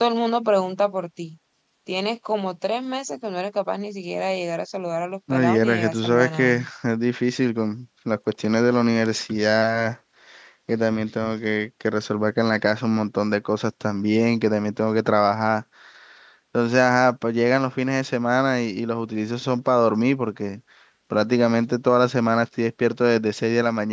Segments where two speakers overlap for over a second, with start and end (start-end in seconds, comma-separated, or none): 5.3-6.7